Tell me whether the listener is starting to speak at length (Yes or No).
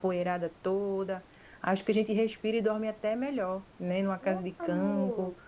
Yes